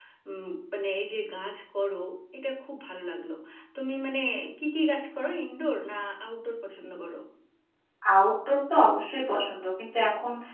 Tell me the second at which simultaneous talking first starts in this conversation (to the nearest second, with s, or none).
none